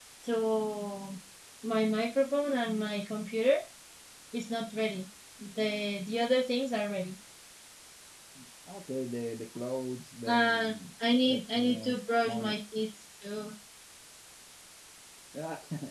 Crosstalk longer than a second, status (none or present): present